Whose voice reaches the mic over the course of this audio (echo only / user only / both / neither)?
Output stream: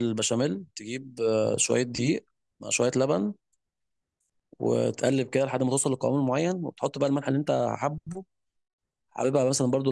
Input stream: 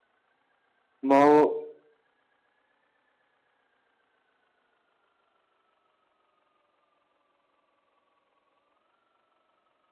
user only